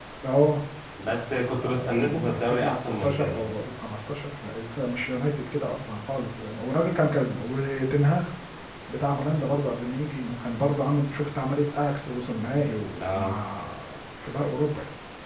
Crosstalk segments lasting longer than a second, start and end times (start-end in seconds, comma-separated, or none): 1.6-3.5